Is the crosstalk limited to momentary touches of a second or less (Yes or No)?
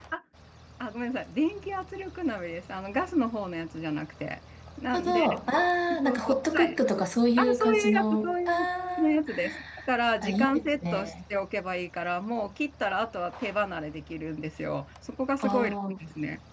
No